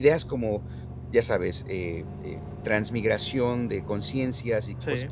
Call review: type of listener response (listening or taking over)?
listening